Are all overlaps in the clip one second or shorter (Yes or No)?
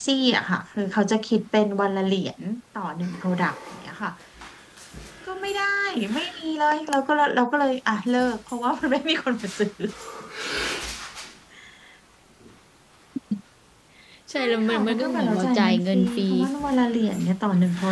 No